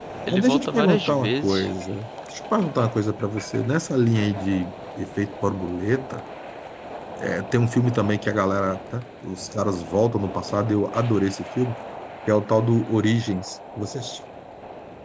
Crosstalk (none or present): present